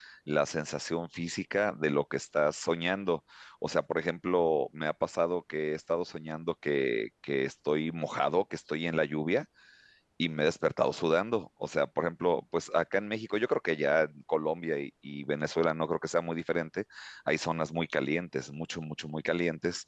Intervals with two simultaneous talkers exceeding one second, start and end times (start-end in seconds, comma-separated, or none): none